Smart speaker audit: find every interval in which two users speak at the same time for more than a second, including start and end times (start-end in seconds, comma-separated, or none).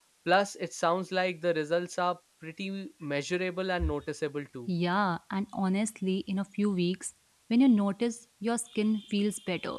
none